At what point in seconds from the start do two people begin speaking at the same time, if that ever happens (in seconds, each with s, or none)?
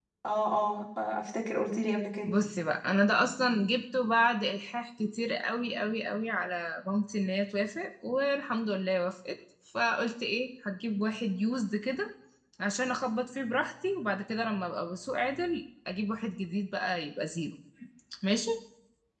none